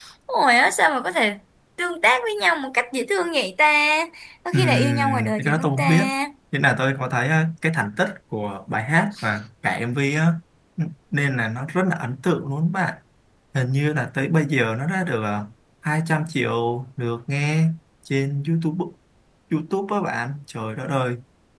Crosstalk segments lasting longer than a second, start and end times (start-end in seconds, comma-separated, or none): 4.5-5.8